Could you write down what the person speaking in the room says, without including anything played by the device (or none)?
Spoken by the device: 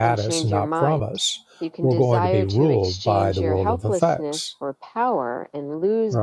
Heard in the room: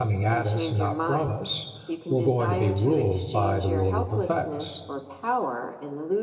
none